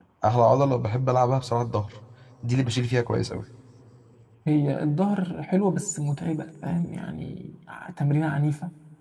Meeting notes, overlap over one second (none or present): none